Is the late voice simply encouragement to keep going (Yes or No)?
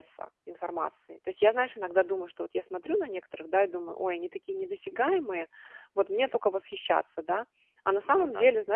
Yes